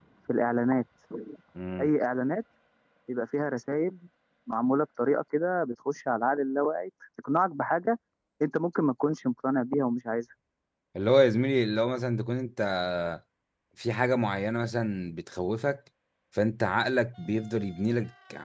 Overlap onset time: none

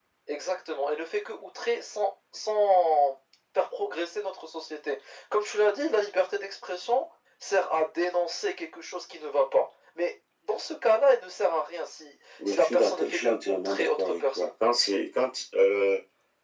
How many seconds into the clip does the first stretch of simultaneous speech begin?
12 s

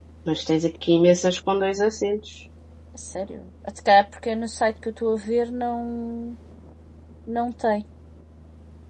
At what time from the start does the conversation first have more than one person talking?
none

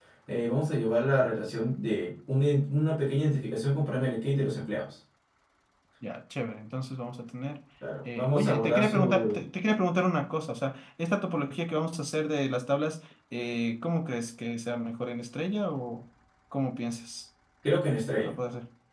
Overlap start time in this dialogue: 8 s

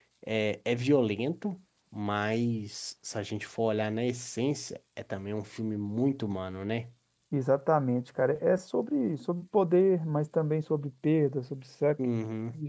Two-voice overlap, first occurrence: none

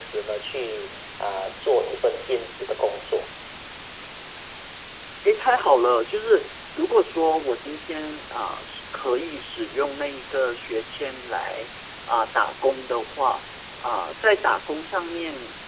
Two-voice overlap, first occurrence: none

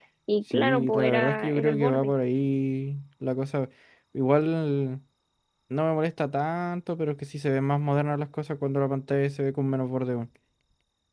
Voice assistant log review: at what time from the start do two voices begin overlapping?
1 s

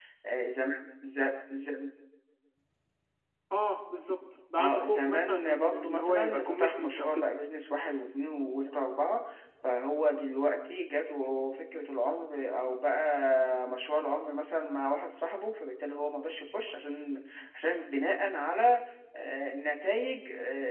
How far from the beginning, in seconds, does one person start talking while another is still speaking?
5 s

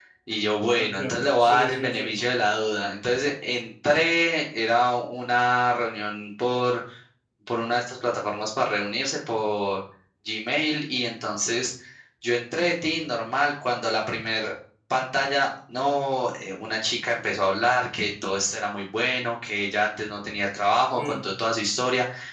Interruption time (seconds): 1 s

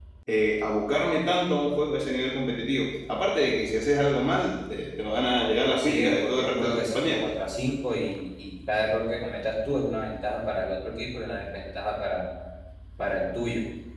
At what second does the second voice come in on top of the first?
6 s

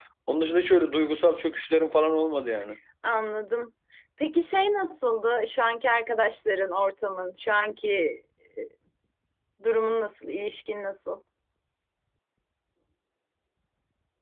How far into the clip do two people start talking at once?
none

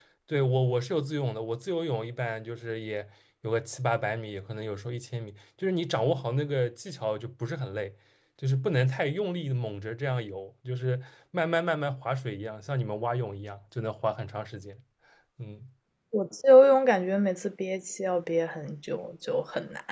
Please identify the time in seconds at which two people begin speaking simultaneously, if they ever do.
none

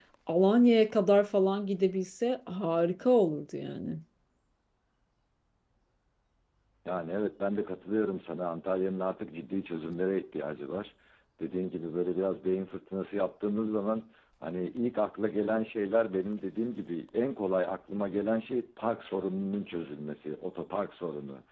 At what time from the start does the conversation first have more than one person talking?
none

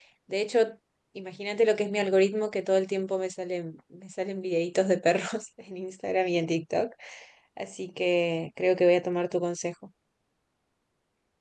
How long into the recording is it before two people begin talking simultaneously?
none

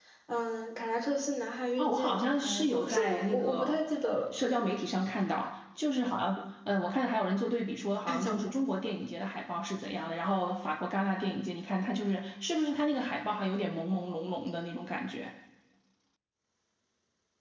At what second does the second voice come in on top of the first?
2 s

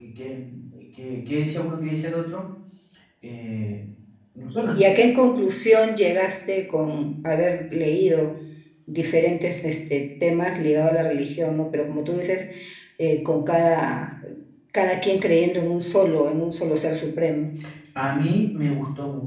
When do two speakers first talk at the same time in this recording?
none

